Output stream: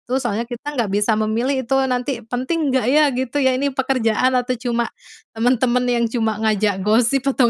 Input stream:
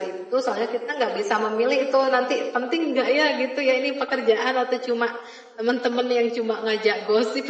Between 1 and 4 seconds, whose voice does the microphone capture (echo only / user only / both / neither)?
echo only